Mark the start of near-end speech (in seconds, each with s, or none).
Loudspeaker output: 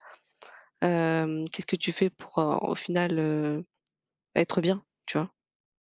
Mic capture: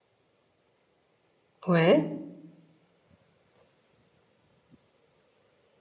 1.7 s